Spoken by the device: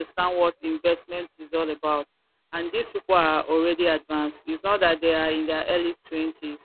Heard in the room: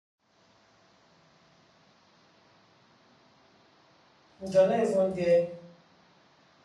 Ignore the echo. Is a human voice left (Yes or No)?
Yes